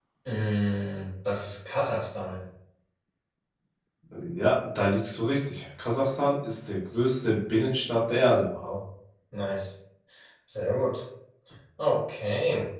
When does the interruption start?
none

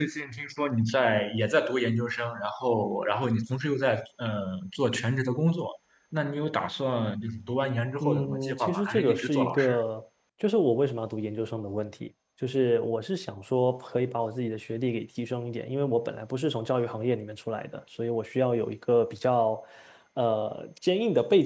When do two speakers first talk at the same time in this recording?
8.0 s

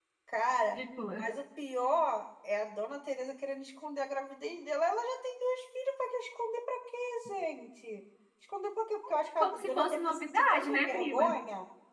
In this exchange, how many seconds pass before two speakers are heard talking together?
9.4 s

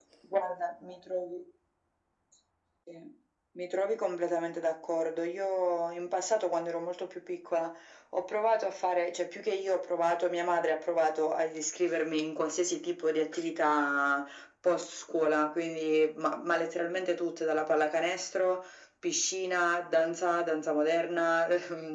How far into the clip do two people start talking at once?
none

